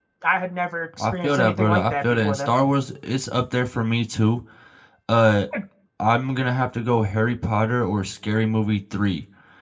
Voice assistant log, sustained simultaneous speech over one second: present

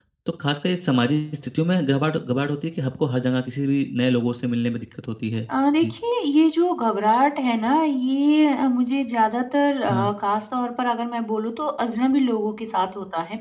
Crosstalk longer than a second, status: none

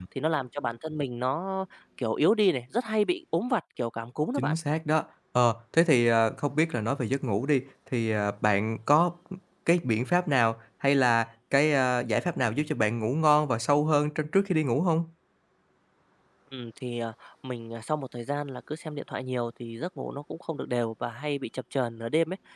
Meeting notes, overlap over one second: none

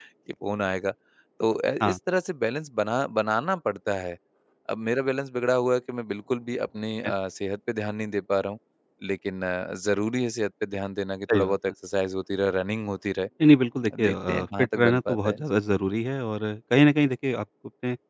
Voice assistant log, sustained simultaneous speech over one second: present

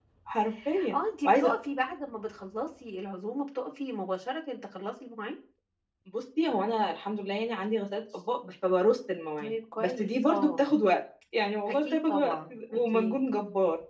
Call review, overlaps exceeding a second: present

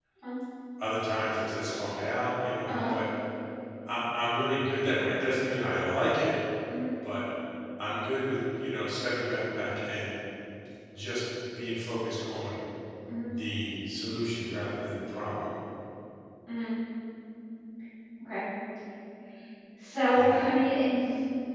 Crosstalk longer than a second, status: none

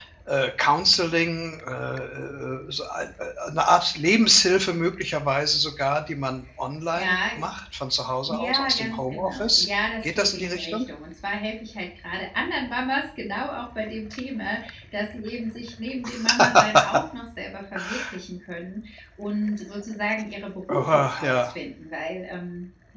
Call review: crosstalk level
present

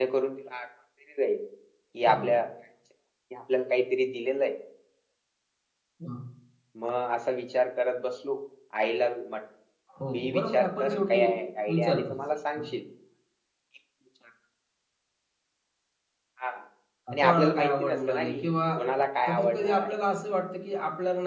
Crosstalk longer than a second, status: present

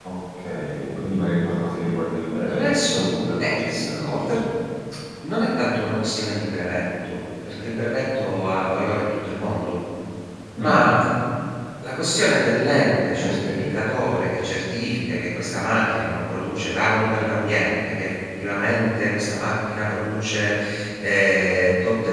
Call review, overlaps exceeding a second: present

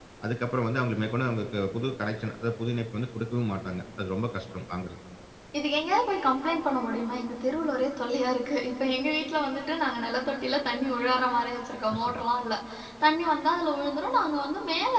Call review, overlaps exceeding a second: none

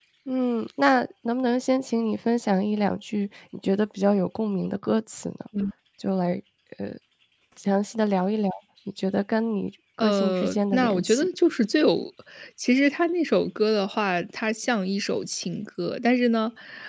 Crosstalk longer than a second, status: present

